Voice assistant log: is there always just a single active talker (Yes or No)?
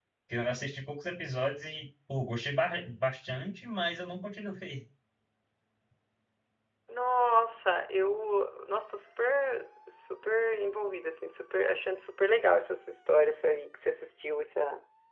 Yes